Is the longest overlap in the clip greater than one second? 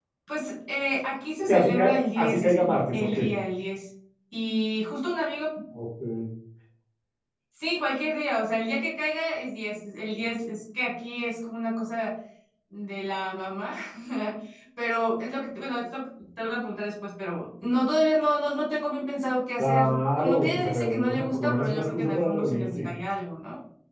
Yes, from 1.4 s

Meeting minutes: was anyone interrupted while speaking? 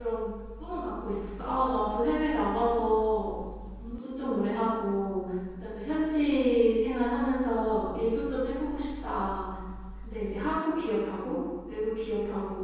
No

